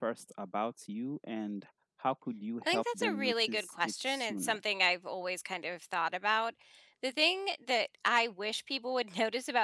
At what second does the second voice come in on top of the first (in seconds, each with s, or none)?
2.6 s